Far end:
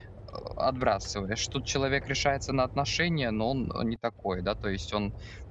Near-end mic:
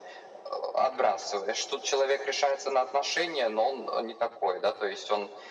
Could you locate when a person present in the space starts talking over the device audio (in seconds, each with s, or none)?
none